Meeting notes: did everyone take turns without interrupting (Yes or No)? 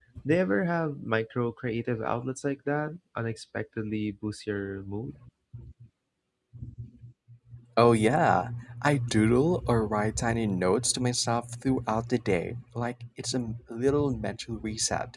Yes